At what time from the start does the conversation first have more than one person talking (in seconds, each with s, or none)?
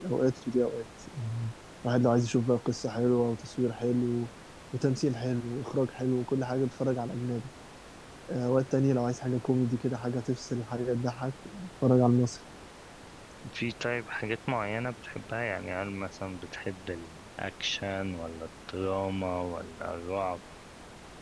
none